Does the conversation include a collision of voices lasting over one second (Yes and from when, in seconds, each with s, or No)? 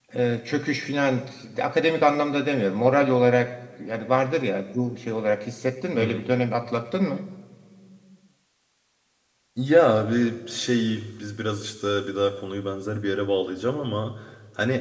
No